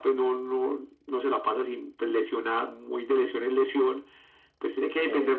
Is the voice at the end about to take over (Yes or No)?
No